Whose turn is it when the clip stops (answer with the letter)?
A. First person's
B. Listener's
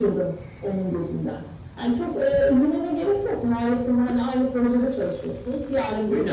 A